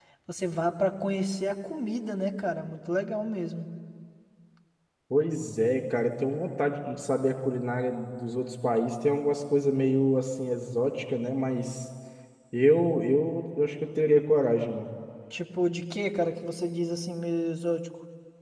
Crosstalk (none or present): none